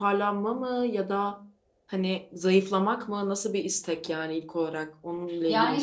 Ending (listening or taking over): taking over